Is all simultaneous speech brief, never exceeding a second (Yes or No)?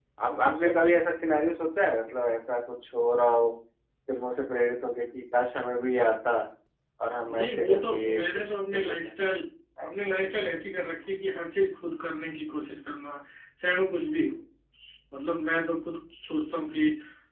No